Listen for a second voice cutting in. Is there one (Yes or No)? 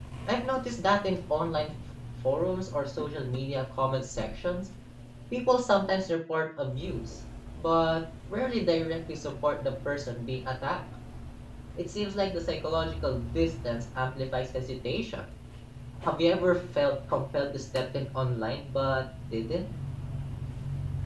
No